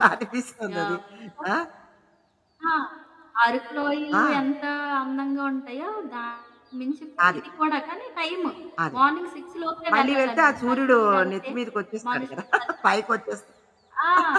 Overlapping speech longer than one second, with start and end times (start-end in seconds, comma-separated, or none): 9.9-11.5